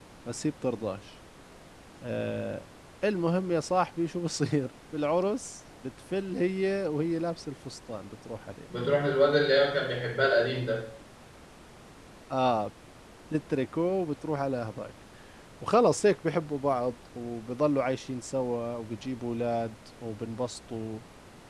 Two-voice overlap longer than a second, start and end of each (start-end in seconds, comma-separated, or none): none